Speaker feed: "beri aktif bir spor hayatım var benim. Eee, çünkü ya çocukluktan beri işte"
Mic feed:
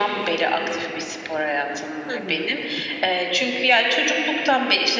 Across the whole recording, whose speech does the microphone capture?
both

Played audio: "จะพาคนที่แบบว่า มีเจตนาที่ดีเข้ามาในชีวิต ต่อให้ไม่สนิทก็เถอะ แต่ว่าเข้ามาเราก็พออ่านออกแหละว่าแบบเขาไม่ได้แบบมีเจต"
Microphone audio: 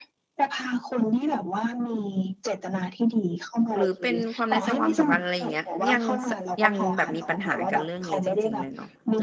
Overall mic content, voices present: both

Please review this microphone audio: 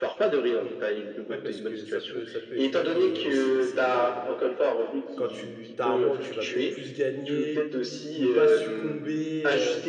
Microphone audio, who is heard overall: both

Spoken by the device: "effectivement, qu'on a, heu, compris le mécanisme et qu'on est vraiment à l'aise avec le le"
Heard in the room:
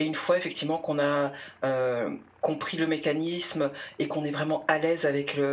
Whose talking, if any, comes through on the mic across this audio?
echo only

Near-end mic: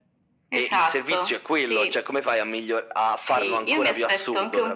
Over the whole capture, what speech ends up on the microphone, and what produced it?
echo only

